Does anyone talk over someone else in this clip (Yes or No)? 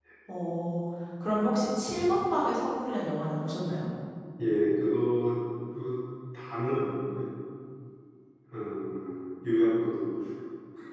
No